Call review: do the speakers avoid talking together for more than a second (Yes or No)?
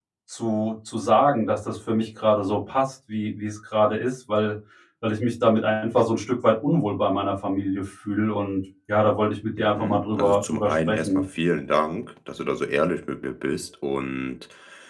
No